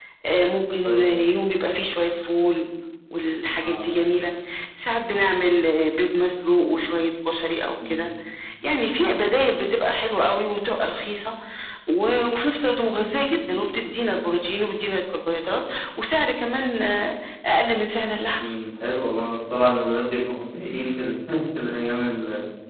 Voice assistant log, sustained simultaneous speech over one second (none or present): none